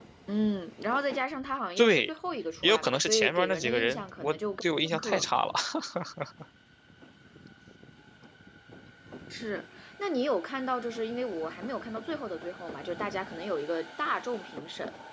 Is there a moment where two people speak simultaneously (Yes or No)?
Yes